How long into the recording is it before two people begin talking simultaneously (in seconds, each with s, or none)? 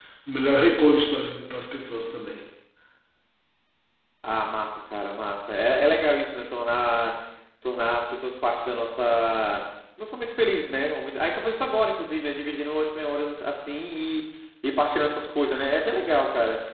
none